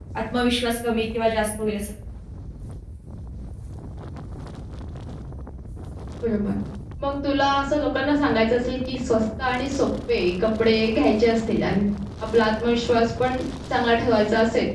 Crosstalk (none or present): none